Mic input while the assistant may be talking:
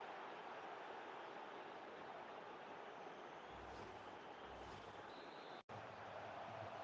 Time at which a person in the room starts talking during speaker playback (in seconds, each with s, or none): none